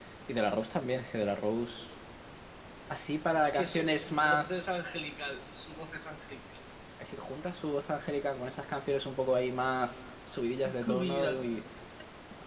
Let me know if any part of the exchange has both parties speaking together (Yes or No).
Yes